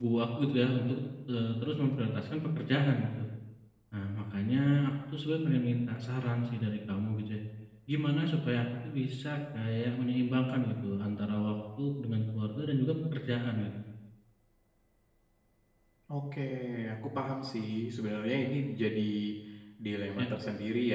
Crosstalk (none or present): none